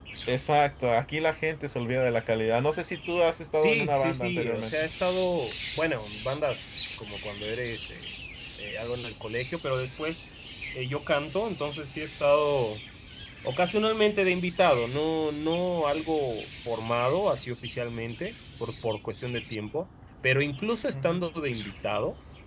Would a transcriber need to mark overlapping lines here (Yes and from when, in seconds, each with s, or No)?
Yes, from 3.5 s